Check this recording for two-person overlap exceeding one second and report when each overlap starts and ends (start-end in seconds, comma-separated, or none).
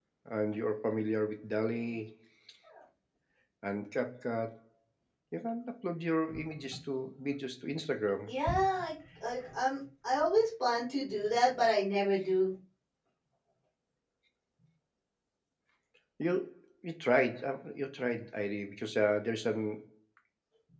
none